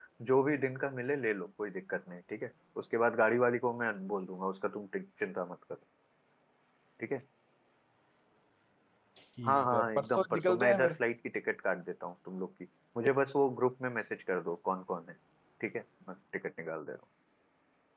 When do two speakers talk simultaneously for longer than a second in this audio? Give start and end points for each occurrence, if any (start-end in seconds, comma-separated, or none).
9.4-11.0